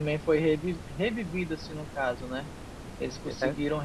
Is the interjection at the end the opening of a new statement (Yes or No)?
No